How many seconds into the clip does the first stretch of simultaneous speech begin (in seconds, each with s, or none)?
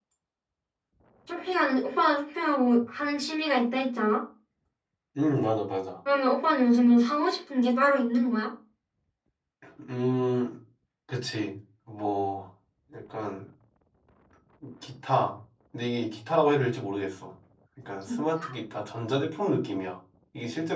none